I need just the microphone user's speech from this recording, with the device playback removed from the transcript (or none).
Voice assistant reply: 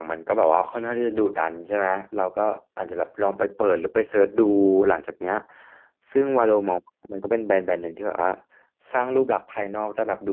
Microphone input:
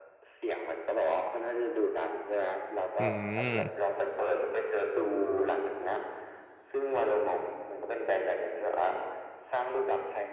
อืม